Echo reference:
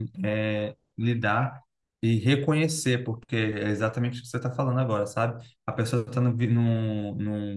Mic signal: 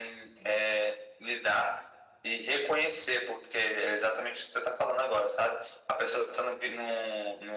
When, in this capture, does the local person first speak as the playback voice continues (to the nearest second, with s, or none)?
none